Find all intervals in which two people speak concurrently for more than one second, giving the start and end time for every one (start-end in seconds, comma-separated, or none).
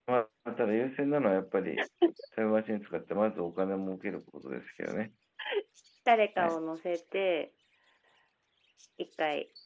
none